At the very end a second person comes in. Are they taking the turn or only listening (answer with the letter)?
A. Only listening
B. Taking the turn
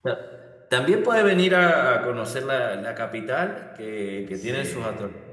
A